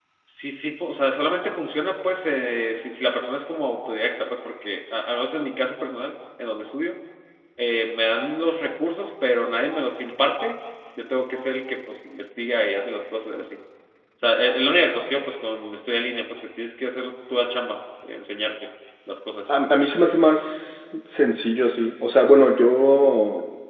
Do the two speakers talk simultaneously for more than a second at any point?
No

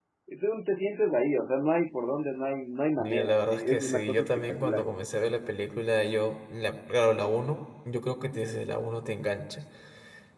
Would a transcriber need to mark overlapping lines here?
Yes, from 3.0 s

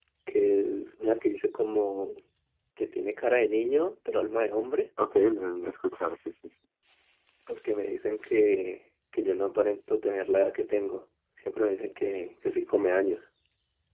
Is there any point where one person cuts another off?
No

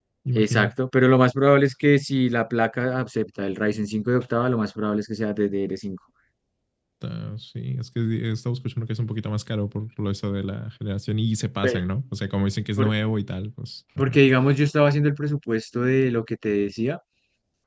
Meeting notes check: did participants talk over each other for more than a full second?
No

